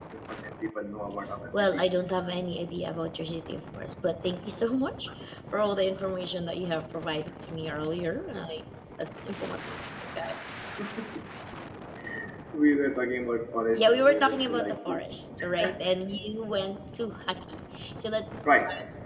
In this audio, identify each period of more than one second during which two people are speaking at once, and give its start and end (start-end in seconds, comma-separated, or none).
13.8-15.0